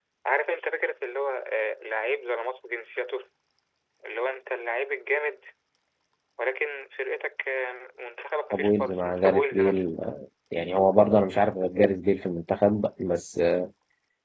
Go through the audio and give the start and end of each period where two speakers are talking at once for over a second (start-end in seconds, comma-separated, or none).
8.5-9.8